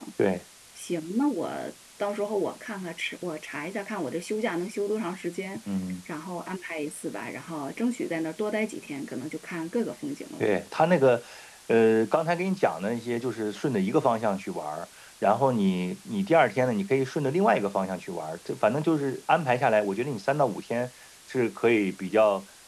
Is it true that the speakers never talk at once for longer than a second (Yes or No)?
Yes